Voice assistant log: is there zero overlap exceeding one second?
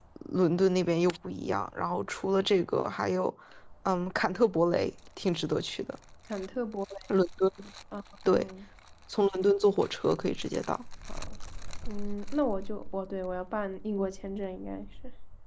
Yes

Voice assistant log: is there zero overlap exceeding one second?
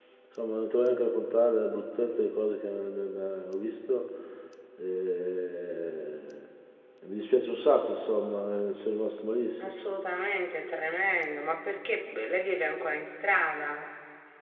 Yes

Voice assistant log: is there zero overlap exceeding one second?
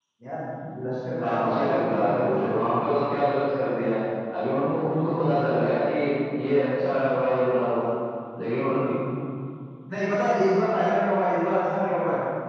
No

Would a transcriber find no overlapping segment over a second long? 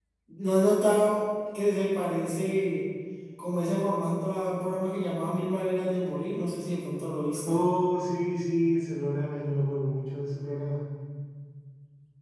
Yes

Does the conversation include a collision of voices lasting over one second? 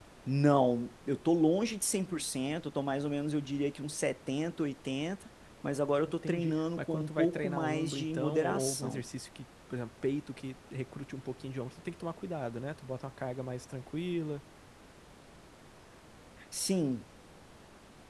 Yes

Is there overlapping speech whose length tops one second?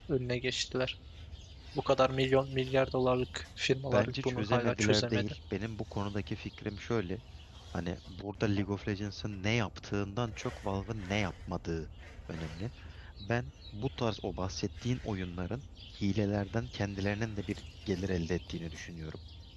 Yes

